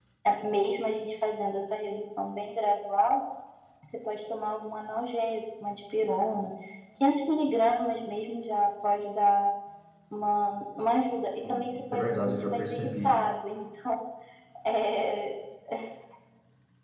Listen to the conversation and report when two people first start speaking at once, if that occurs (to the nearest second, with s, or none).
11 s